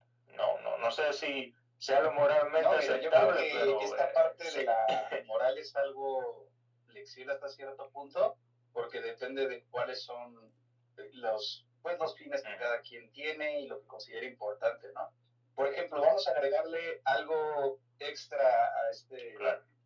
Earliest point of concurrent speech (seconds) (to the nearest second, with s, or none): 3 s